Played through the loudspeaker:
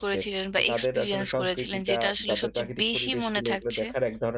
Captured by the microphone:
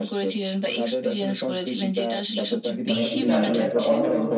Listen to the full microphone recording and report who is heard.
both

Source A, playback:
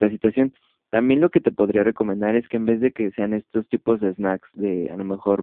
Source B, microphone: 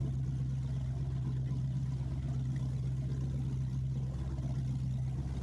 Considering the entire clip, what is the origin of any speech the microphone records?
neither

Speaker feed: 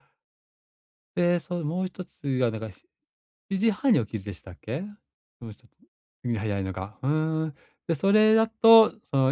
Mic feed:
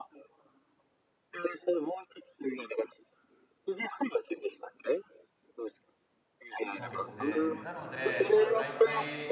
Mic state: both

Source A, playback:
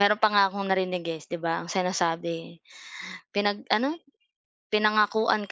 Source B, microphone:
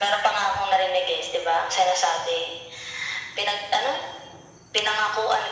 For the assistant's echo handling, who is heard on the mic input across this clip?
echo only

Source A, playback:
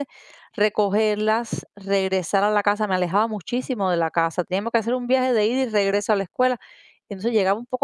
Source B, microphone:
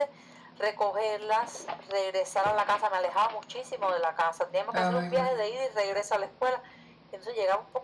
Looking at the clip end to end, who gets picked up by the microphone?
both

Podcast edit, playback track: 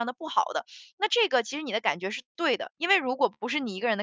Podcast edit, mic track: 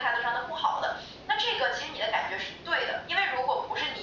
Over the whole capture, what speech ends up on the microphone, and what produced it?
echo only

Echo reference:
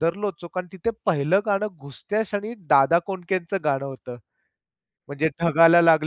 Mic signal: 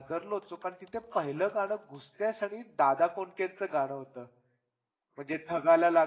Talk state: echo only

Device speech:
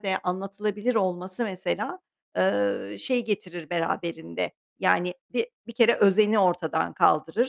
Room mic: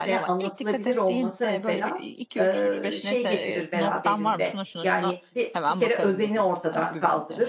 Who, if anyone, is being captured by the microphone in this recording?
both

